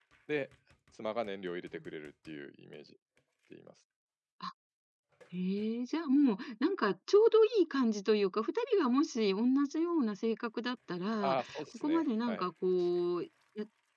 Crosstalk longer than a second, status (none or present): present